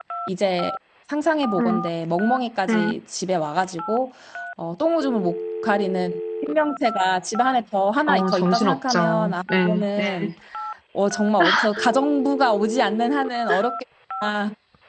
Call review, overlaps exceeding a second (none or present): present